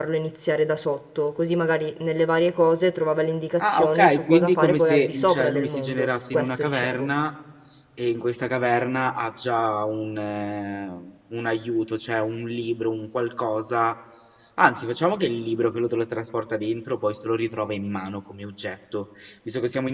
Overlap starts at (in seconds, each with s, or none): 3.6 s